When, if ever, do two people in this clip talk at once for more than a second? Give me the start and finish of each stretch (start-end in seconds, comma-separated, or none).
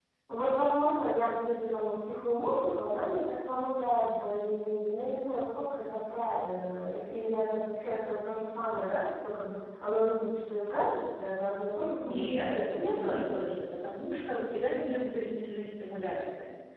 12.0-13.4